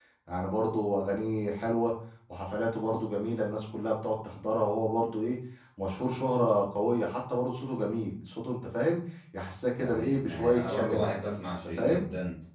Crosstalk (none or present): present